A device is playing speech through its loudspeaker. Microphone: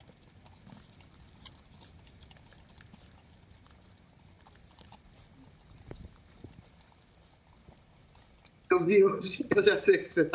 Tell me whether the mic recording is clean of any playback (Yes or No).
Yes